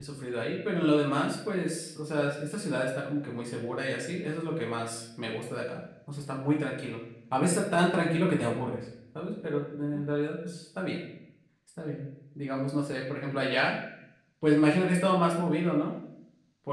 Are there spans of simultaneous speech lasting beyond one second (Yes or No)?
No